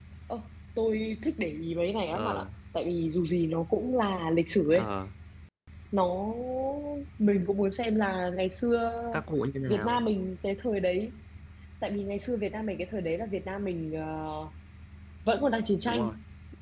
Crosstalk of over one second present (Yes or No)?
No